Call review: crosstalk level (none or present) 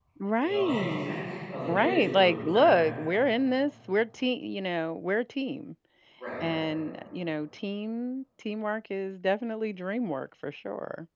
present